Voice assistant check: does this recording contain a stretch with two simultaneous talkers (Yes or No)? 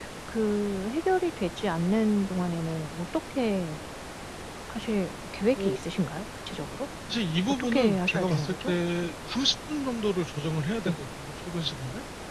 Yes